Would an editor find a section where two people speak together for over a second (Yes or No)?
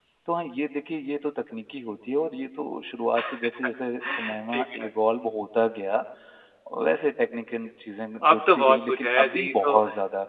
Yes